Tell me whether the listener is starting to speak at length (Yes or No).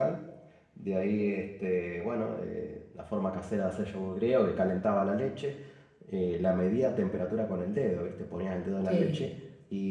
No